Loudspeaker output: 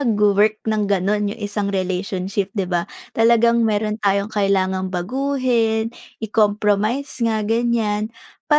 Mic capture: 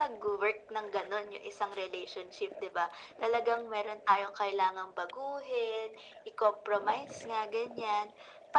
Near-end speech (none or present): none